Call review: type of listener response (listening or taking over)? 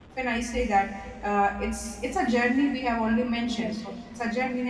listening